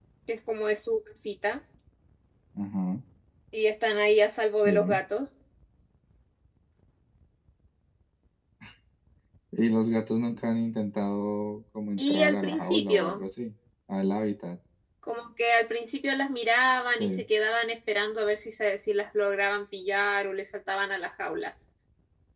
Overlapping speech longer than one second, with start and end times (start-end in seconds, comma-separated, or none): 12.0-13.2